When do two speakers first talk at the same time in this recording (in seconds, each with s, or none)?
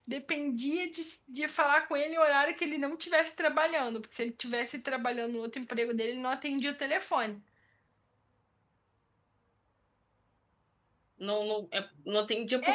none